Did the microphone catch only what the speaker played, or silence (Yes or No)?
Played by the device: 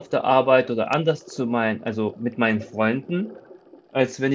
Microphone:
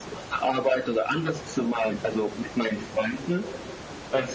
Yes